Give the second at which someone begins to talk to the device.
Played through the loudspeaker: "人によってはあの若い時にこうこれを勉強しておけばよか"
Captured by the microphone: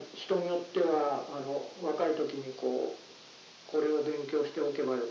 none

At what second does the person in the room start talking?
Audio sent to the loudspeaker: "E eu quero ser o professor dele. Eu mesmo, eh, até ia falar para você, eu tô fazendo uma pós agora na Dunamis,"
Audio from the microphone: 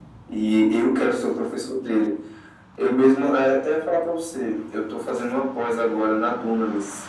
none

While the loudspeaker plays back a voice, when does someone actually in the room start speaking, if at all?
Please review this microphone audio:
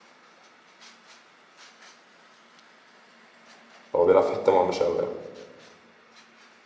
3.9 s

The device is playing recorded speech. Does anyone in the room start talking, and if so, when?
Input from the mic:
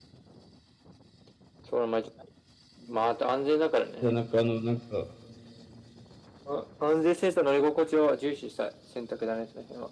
4.0 s

